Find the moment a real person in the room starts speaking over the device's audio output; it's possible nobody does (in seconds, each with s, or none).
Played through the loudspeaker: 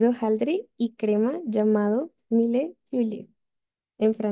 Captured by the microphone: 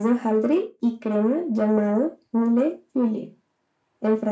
none